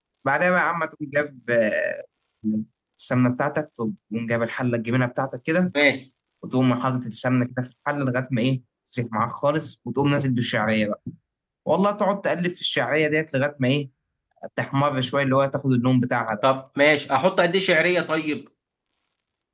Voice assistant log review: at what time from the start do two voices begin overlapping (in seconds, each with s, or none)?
none